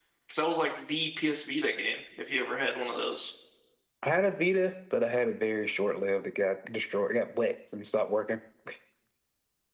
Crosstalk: none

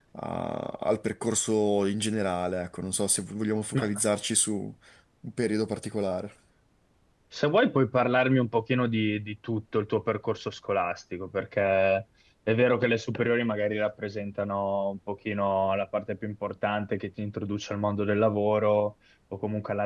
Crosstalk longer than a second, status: none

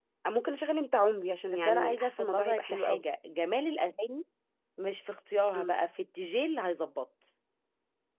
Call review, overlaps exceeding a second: present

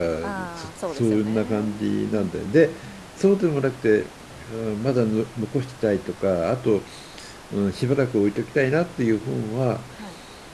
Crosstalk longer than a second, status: present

